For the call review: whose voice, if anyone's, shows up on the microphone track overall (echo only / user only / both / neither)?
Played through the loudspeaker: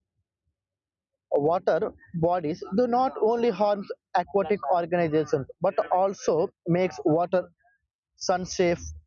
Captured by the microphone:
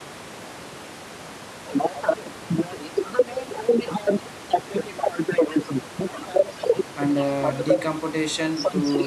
both